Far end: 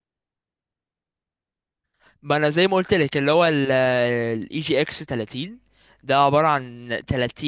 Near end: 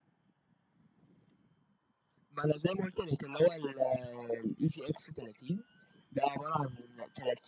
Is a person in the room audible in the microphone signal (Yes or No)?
No